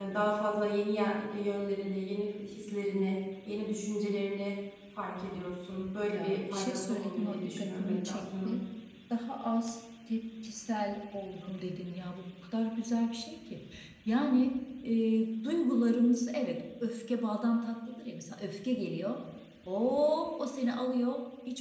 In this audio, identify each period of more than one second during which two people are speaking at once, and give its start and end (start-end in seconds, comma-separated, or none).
6.1-8.6